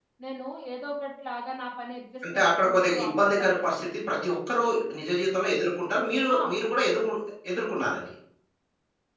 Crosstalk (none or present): present